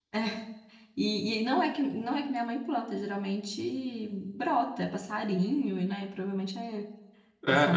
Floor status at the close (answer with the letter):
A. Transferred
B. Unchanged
A